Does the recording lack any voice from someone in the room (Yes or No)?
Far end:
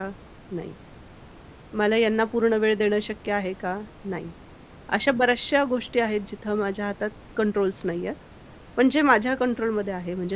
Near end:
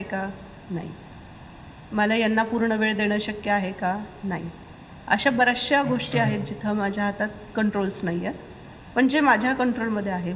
No